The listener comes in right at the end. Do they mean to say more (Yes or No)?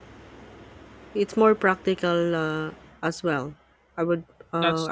Yes